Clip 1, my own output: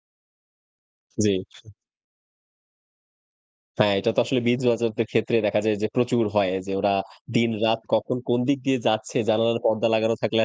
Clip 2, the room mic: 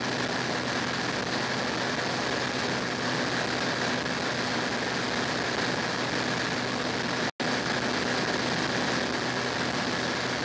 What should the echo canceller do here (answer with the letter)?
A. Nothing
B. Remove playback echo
A